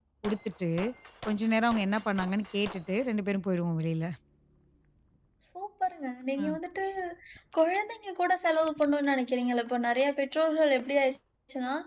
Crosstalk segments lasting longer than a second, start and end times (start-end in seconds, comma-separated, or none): none